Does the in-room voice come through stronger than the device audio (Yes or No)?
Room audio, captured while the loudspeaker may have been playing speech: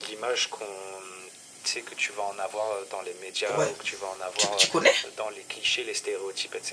Yes